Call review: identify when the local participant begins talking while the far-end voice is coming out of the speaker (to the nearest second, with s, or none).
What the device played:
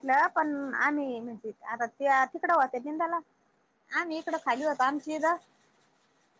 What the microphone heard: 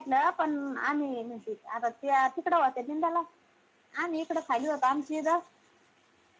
none